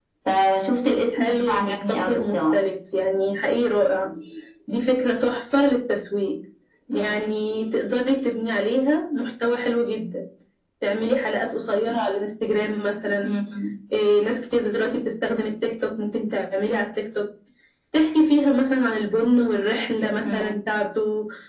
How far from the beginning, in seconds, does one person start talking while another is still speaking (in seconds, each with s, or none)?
1.1 s